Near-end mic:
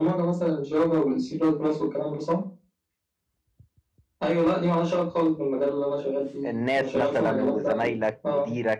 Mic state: both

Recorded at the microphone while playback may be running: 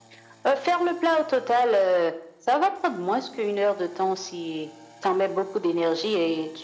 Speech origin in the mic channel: echo only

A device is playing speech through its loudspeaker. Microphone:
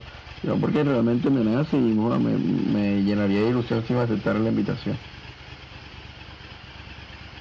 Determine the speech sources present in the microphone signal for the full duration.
echo only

